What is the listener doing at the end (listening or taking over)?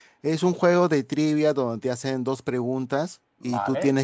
listening